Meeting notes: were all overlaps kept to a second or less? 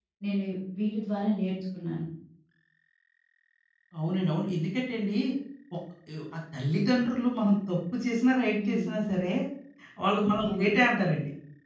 Yes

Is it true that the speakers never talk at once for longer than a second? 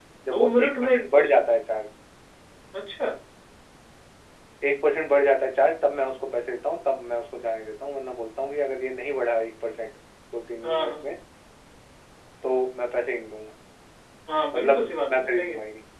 No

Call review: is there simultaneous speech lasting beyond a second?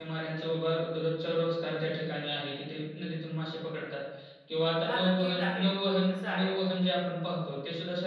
Yes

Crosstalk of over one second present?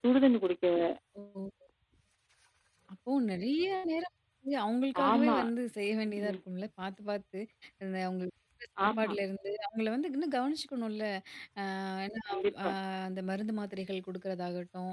No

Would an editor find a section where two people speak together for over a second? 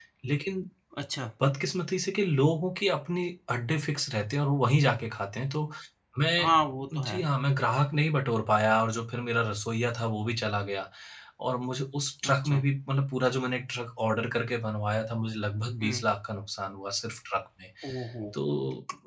No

